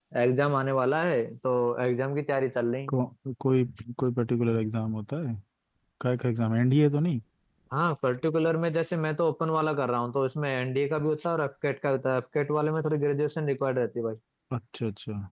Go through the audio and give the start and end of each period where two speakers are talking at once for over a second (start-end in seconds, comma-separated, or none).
none